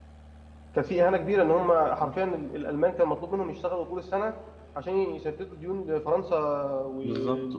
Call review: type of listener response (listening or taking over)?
taking over